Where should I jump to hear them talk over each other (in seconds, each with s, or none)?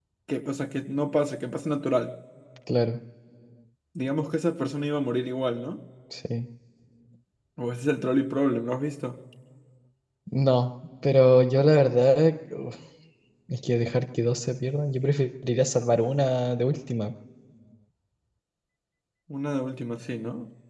none